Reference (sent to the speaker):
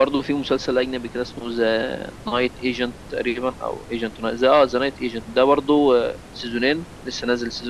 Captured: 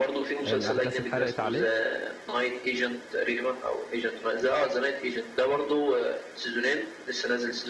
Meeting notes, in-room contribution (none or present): present